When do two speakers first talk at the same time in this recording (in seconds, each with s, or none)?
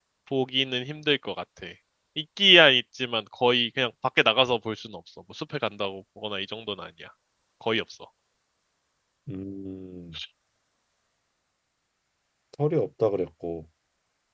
none